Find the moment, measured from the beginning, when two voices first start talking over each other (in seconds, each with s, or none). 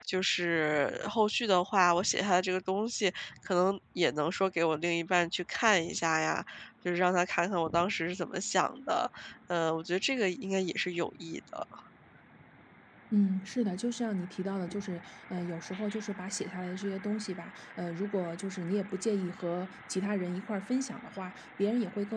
none